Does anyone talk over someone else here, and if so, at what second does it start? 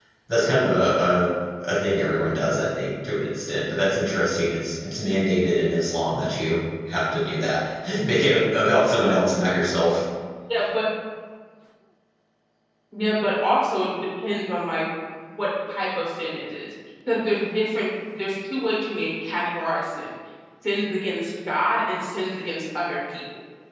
none

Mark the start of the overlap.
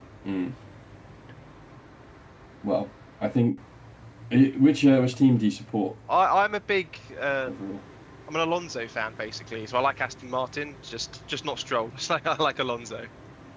none

